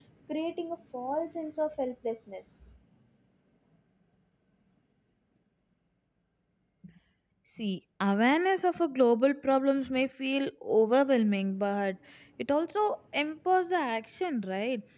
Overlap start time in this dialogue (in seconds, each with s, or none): none